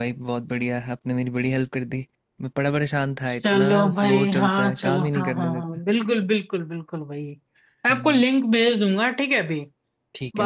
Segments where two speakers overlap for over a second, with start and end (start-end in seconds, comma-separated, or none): 3.3-5.6